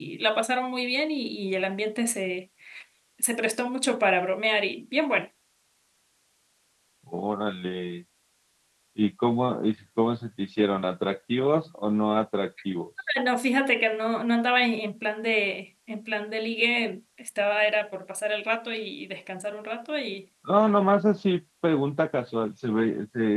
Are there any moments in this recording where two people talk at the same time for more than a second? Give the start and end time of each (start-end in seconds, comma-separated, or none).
none